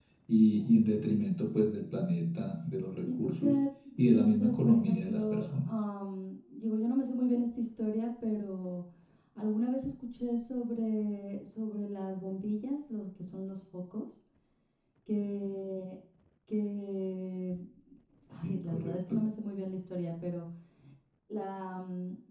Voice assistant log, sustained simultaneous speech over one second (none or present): present